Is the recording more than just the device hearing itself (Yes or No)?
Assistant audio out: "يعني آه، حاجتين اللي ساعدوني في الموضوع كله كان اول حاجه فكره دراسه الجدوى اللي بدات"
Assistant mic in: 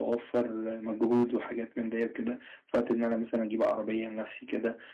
Yes